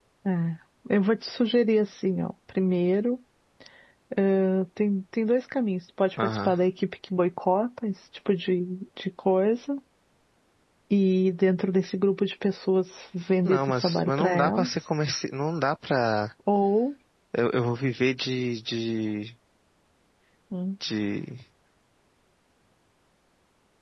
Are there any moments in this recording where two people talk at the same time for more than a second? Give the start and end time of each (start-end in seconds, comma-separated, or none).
13.4-14.8